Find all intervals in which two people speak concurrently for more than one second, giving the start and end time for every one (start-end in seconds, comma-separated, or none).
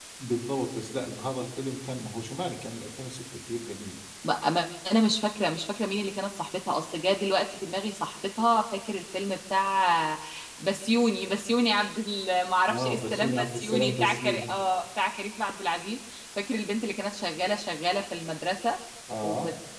12.7-14.6